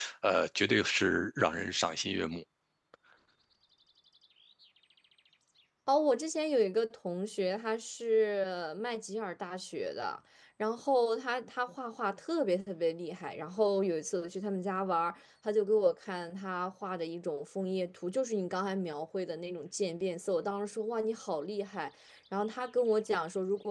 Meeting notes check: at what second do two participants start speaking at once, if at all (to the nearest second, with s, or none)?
none